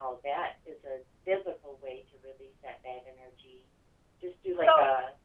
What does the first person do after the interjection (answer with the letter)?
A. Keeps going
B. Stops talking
B